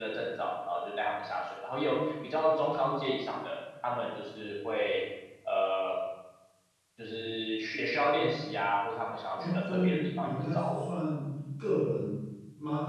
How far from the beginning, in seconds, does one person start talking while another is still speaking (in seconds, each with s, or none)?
9.4 s